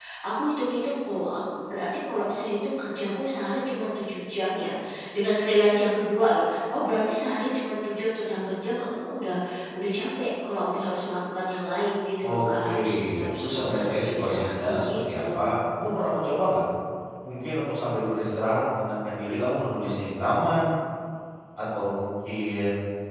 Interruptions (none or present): present